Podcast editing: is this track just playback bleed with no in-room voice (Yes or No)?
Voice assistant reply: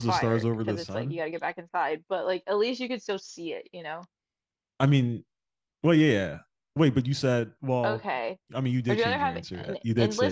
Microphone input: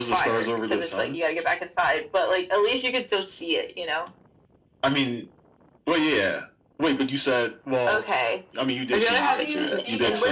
No